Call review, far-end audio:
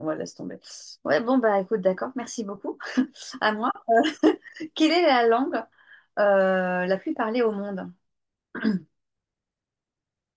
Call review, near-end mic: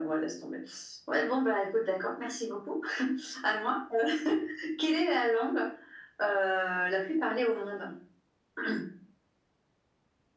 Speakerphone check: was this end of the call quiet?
Yes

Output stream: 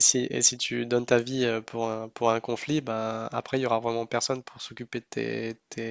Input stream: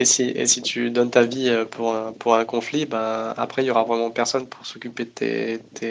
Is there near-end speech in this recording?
No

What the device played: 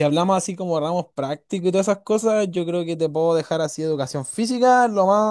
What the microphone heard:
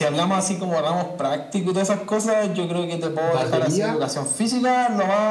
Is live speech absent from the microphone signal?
No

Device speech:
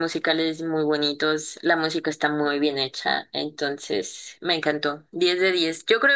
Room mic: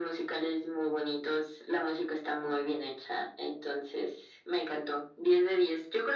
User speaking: No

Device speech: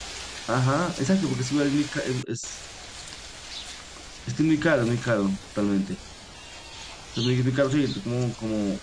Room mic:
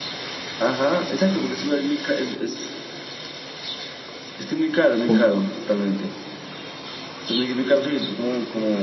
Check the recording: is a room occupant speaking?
Yes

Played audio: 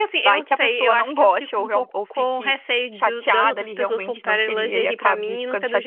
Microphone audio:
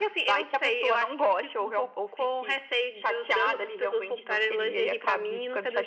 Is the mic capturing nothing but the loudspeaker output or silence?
Yes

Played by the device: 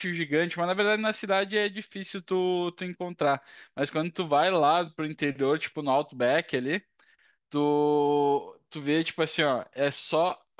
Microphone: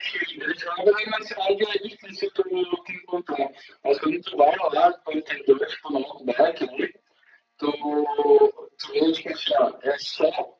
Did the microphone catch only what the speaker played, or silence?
Yes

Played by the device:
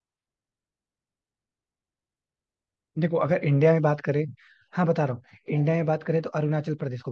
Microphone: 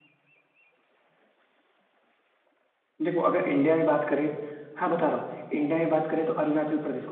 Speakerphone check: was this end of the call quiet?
Yes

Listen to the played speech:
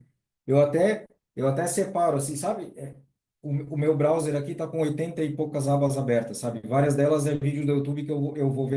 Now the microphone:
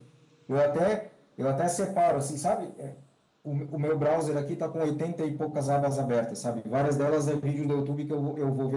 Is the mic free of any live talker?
Yes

